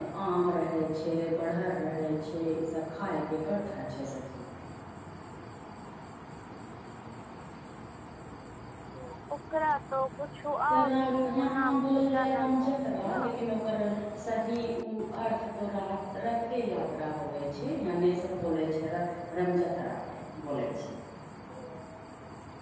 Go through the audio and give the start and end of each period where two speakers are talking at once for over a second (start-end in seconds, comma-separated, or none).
10.7-13.2